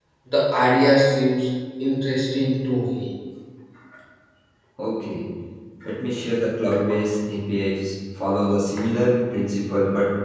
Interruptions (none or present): none